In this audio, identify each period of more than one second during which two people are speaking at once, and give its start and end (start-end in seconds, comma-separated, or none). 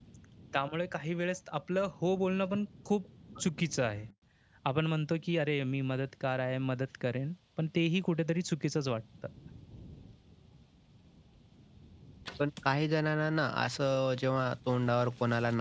none